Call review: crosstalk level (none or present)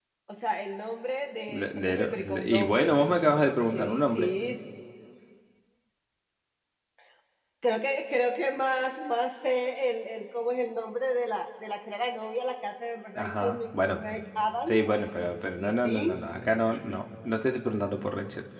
present